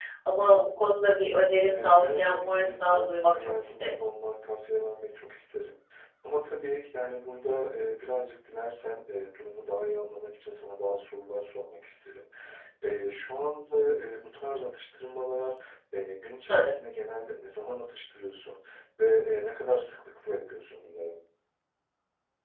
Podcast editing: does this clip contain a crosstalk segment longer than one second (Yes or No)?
Yes